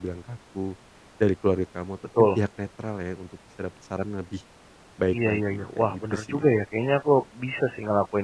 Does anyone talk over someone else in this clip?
Yes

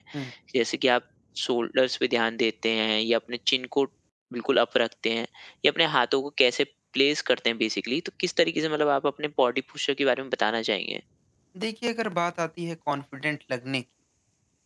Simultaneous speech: No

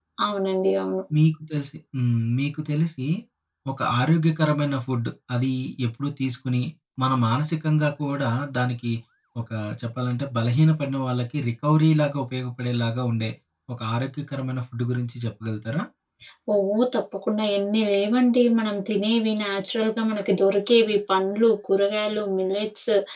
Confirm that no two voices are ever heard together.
Yes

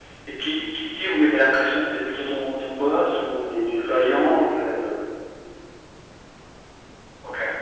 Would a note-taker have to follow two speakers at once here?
Yes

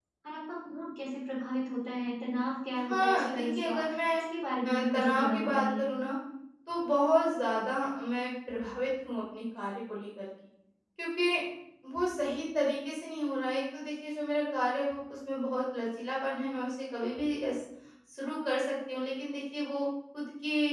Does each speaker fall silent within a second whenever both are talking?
No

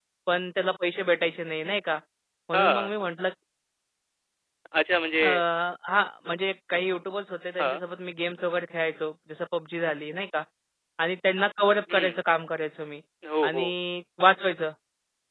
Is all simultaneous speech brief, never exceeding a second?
Yes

